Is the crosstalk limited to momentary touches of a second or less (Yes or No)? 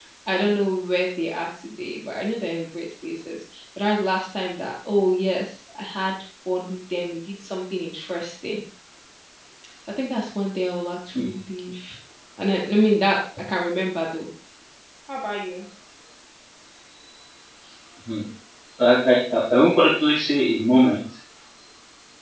Yes